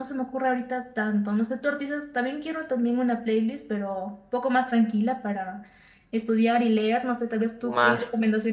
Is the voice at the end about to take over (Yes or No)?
Yes